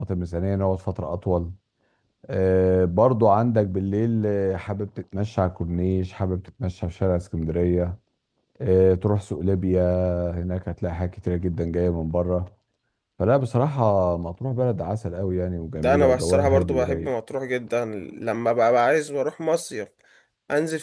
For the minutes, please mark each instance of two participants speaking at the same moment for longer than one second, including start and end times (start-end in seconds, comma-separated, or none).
15.8-17.1